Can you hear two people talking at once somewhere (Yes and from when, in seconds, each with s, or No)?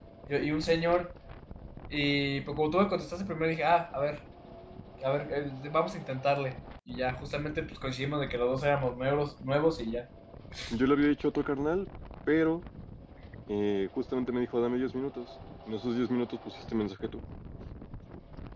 No